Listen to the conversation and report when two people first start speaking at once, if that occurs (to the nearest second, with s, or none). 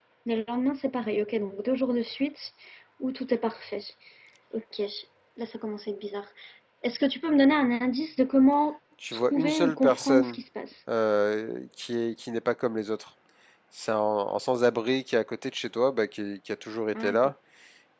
9 s